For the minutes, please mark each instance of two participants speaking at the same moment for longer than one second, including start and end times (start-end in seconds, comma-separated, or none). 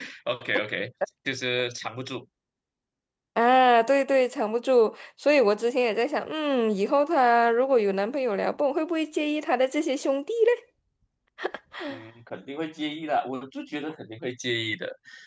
none